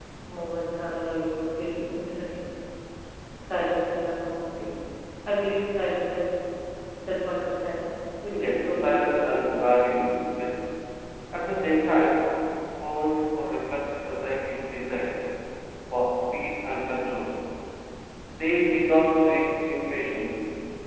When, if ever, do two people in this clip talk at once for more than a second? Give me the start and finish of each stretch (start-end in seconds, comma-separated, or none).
8.3-9.5